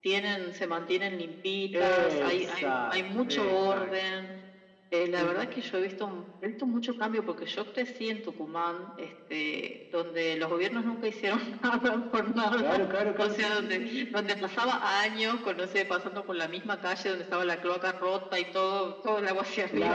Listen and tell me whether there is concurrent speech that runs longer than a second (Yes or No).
Yes